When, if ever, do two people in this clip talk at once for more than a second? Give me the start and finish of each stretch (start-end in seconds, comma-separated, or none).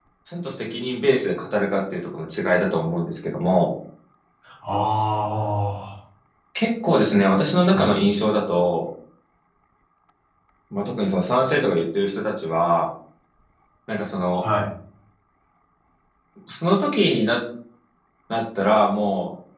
none